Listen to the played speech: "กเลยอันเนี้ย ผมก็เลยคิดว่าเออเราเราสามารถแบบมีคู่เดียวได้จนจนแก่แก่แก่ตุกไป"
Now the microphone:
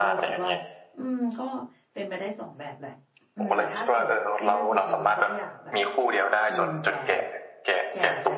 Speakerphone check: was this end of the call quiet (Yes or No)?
No